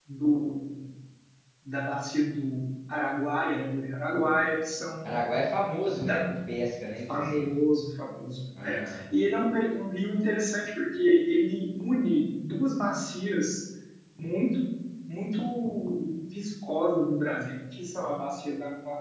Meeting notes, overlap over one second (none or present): none